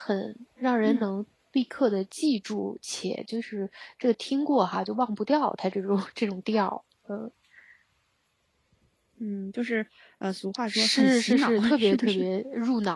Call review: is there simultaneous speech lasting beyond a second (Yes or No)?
Yes